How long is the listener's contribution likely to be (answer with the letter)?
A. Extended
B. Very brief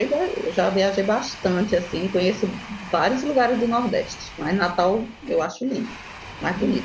A